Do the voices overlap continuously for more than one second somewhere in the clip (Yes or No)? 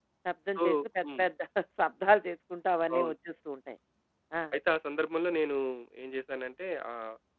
No